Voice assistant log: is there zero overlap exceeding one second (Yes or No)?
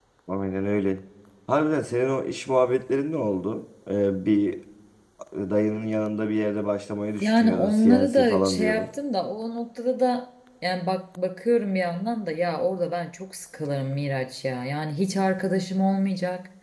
No